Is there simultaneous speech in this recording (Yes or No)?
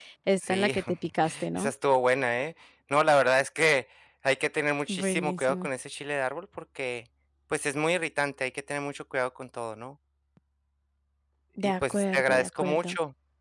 Yes